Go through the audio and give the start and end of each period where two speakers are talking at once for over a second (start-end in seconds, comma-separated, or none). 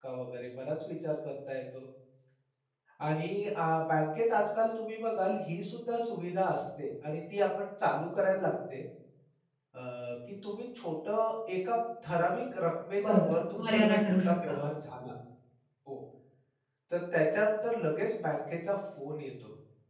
13.1-14.6